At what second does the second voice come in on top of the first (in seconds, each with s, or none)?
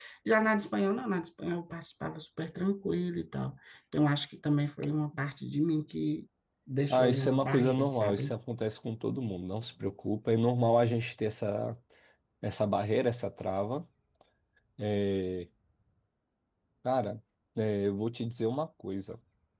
6.9 s